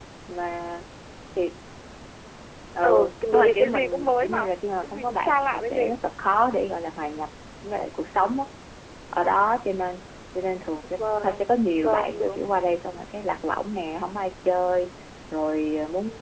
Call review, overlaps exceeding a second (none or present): present